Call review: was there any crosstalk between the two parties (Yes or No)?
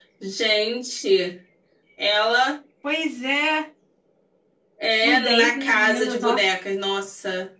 Yes